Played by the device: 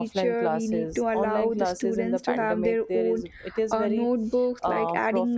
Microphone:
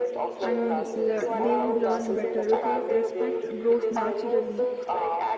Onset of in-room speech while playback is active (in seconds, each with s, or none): 0.4 s